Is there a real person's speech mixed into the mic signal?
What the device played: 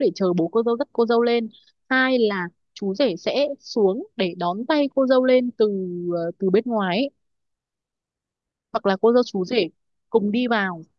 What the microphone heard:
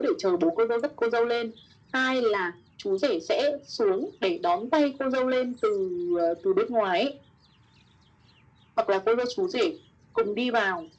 No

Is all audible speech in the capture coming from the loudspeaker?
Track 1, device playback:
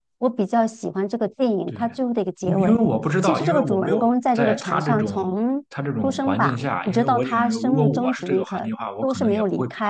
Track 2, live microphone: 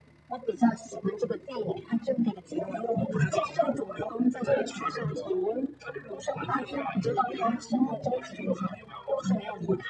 Yes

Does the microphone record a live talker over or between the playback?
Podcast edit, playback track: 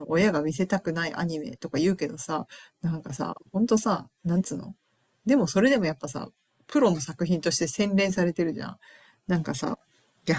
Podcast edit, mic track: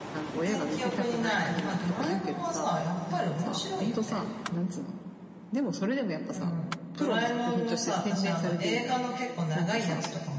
Yes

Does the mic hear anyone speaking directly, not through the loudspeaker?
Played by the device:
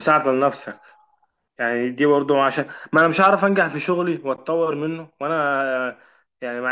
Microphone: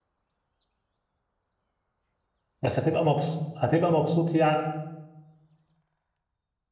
Yes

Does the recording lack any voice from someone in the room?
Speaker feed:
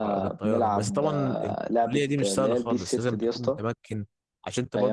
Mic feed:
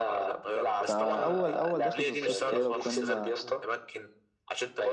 No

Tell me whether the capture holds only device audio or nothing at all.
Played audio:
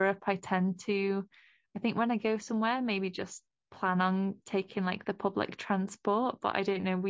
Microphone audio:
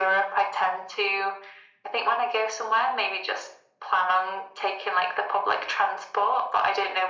Yes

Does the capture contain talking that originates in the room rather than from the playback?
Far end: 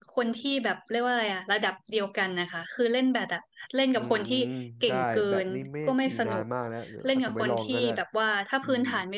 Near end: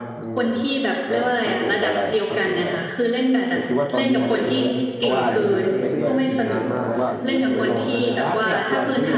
Yes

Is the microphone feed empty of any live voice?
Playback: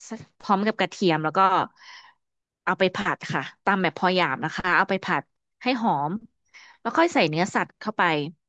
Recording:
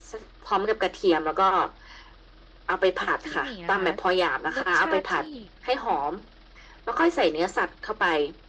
No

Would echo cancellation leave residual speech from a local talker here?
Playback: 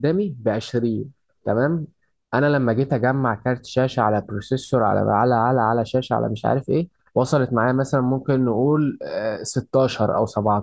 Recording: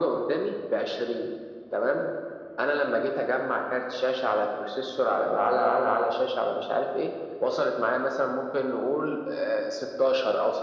No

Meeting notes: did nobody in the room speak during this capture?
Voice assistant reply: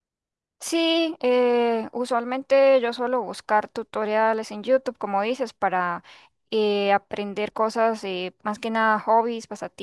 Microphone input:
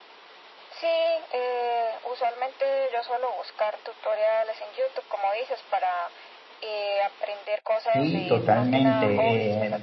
No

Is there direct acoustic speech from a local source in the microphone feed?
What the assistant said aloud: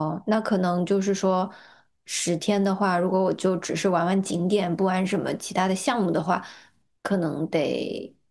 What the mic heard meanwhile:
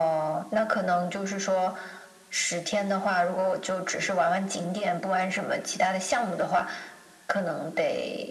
No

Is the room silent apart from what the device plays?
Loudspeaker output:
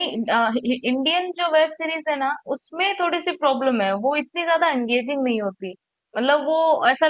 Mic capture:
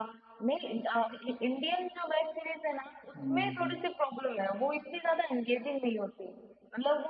No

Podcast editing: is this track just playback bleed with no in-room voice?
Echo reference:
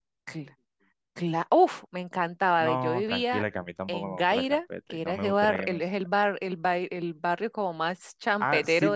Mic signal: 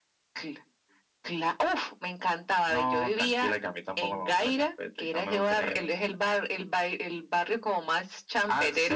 Yes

